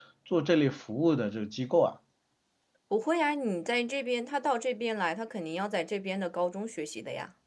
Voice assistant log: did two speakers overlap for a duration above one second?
No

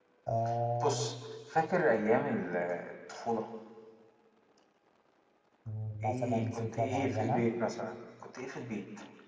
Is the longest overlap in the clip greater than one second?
Yes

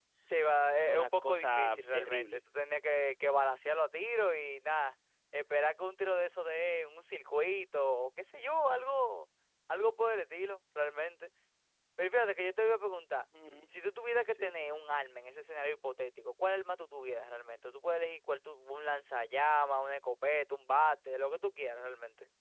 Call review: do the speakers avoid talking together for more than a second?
No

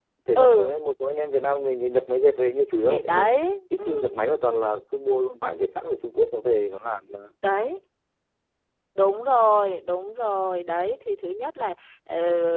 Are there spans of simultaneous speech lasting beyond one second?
No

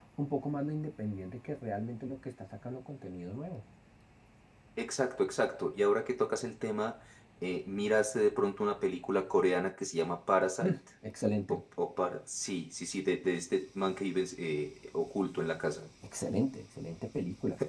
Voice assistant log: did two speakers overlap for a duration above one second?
No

